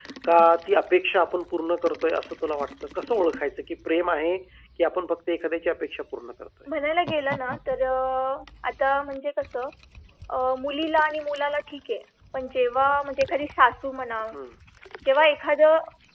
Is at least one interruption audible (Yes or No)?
No